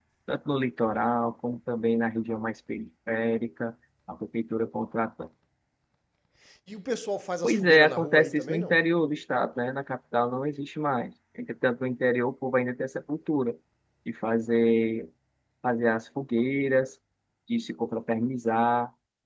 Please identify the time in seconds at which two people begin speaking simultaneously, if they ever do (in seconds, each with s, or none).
7.4 s